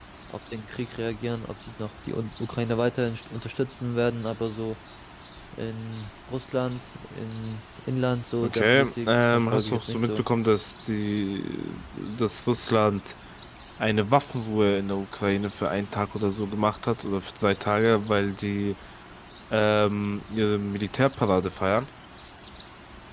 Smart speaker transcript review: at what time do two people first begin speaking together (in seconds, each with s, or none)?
8.4 s